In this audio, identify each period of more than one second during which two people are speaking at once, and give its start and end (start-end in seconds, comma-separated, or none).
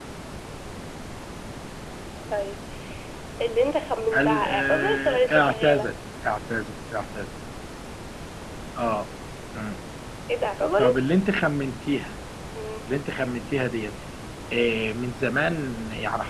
4.1-5.9